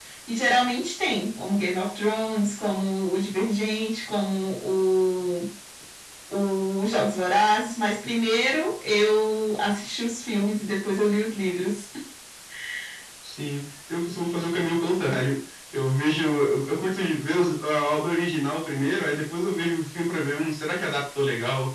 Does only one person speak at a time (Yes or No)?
Yes